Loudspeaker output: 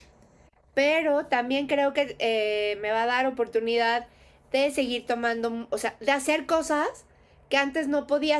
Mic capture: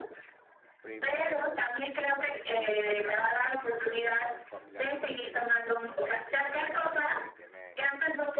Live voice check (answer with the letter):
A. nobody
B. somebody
B